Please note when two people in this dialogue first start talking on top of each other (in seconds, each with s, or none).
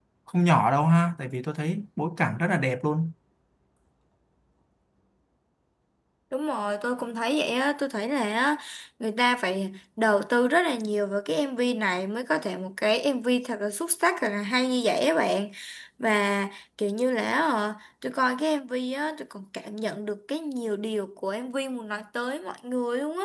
none